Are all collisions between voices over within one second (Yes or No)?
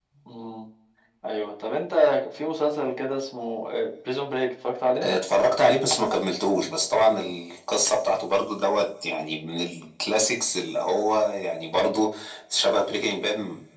Yes